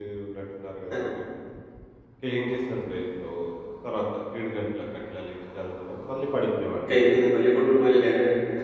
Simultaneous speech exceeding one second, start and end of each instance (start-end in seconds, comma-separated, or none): none